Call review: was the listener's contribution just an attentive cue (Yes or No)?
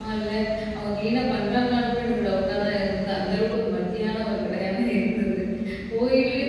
Yes